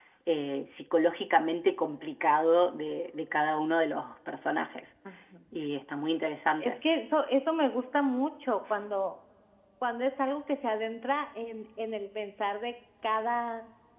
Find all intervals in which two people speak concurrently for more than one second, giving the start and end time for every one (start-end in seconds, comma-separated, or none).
none